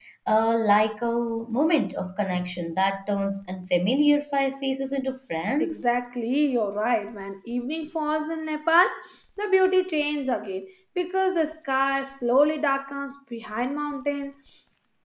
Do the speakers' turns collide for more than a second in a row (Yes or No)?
No